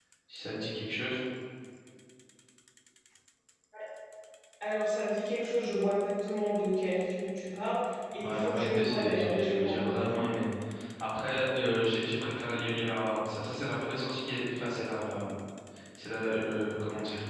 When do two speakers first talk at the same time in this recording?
8 s

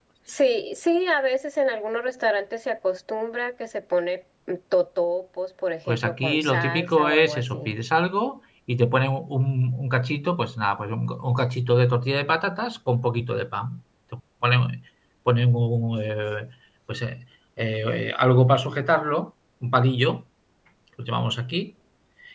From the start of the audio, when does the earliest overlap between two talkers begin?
6 s

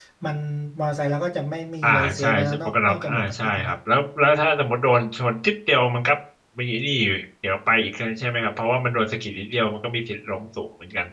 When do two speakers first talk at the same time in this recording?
2 s

